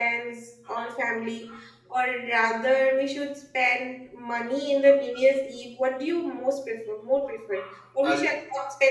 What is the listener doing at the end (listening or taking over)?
listening